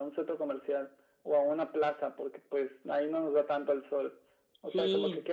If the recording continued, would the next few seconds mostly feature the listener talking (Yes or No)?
No